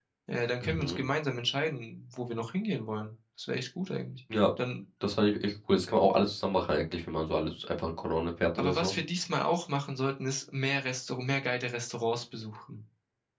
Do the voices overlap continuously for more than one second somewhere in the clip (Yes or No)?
No